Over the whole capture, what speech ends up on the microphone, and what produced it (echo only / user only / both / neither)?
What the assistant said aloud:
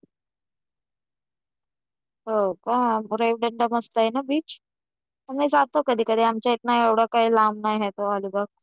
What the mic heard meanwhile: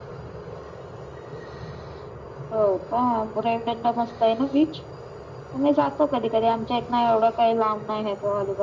echo only